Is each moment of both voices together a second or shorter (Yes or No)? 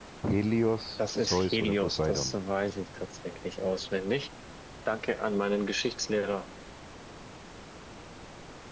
No